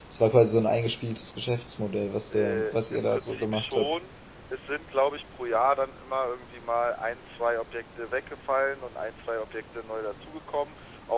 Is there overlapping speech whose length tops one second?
Yes, from 2.3 s

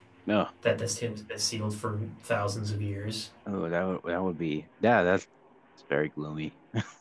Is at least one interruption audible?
No

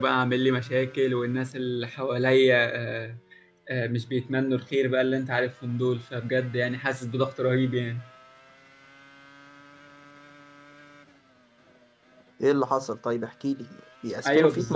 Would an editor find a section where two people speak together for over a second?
No

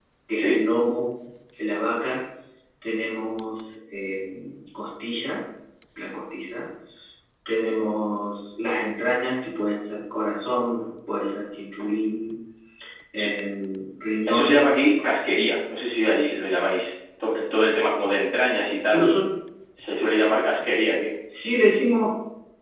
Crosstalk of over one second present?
No

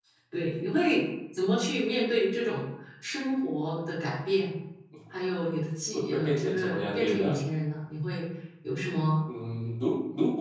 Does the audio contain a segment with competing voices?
Yes, from 5.9 s

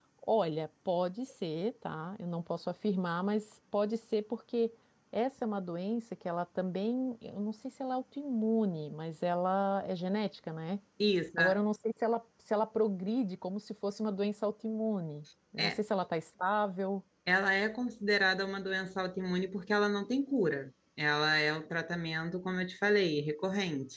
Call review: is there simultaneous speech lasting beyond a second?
No

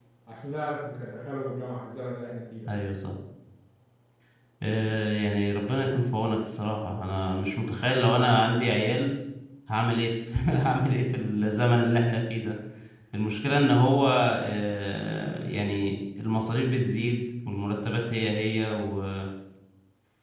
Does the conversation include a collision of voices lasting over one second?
No

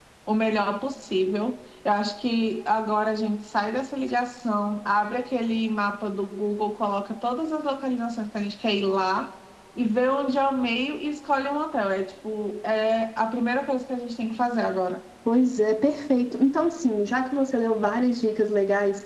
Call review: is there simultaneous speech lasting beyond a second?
No

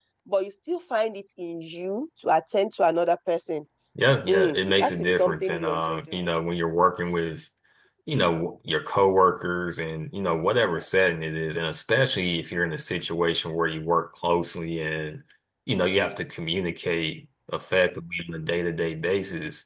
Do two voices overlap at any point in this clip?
Yes, from 4.3 s

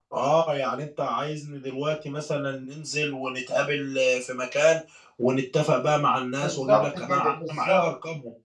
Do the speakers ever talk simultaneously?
Yes, from 6.4 s

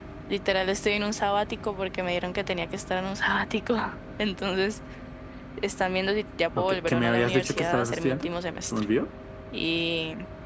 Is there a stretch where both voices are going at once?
Yes, from 6.5 s

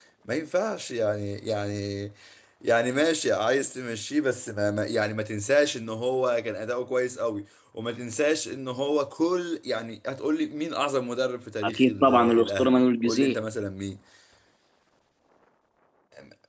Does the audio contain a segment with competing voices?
Yes, from 11.6 s

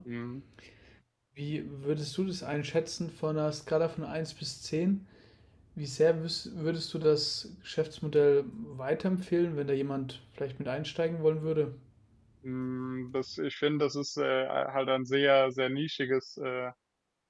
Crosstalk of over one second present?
No

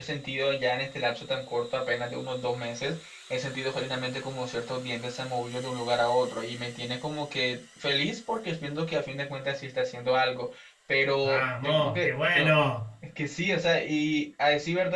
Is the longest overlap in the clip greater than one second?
Yes, from 11.2 s

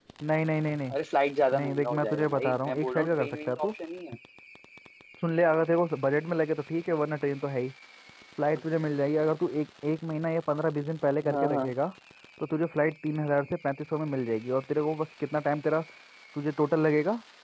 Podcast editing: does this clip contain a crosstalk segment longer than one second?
Yes, from 1.5 s

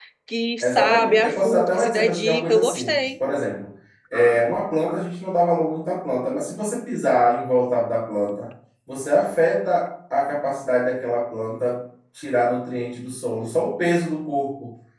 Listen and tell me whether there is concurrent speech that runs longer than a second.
Yes, from 0.6 s

